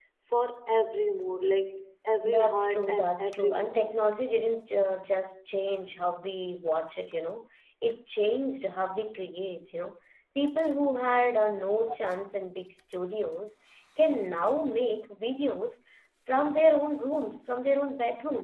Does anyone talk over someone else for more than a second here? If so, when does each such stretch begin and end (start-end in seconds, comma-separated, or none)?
2.2-4.1